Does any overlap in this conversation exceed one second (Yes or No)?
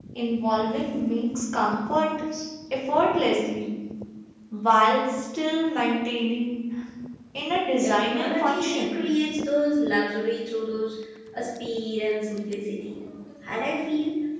Yes